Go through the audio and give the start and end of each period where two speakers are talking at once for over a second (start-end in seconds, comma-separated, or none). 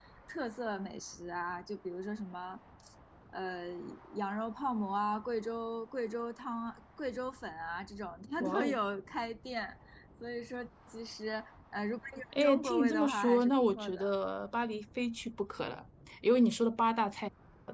12.4-14.1